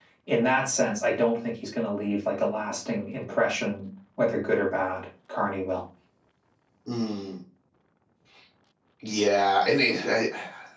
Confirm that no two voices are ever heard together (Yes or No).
Yes